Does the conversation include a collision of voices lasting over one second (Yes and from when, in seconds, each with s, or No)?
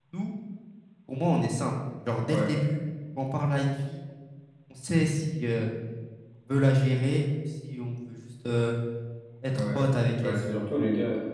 No